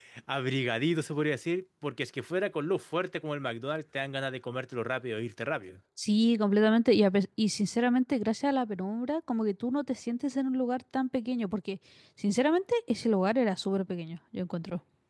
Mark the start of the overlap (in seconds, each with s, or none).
none